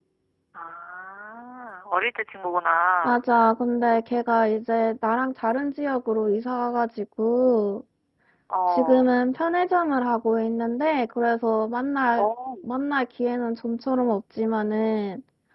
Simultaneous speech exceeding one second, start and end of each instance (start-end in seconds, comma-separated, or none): none